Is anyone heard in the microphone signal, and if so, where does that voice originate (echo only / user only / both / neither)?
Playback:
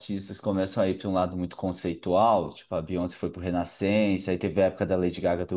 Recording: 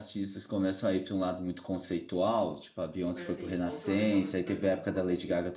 both